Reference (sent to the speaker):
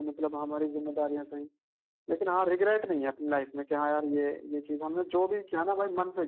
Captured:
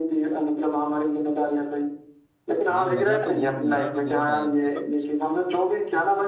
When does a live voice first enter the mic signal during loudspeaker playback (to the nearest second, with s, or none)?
3 s